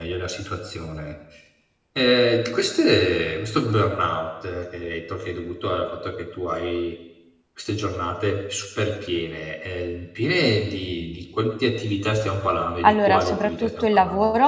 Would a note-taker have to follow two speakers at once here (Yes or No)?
Yes